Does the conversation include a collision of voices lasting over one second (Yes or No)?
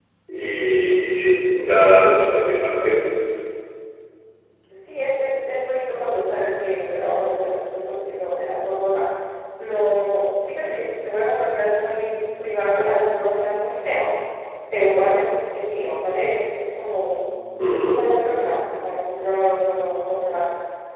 No